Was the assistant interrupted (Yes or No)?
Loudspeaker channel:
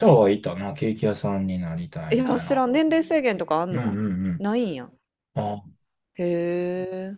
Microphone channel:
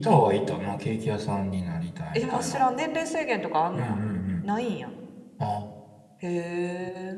No